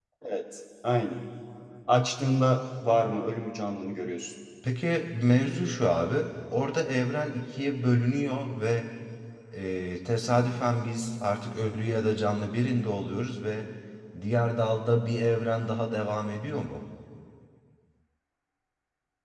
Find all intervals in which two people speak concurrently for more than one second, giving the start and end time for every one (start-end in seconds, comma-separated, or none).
none